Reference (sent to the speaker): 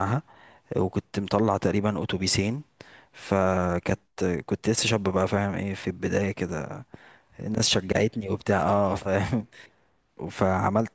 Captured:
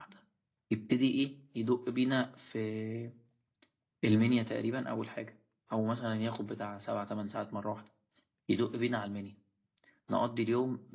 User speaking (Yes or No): Yes